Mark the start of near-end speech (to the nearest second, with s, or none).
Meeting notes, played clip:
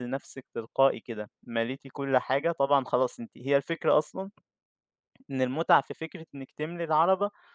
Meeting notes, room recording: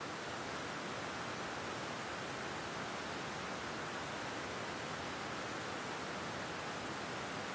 none